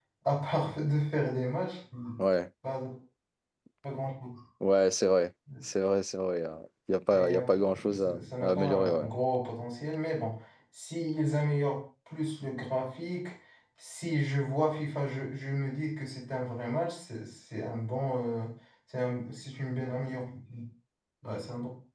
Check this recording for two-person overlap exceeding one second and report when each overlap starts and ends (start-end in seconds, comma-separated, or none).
7.2-9.1